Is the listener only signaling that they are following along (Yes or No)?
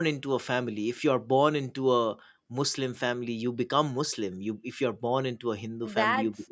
No